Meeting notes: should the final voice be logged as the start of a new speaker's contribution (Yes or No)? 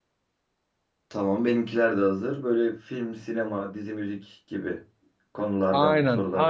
Yes